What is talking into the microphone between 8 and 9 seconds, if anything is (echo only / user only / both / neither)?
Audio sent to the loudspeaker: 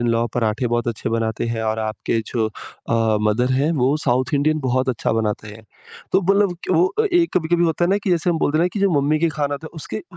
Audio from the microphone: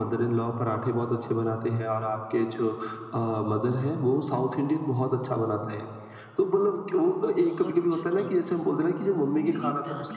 both